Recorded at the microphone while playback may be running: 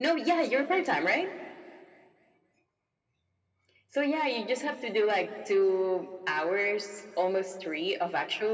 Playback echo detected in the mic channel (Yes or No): Yes